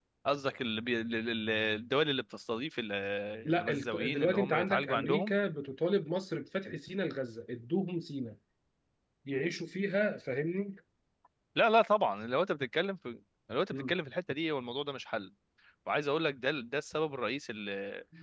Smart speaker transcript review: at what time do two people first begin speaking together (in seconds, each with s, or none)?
3.6 s